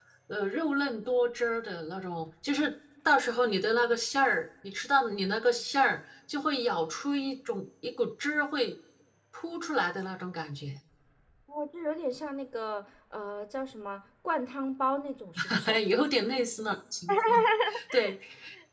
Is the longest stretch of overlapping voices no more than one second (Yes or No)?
Yes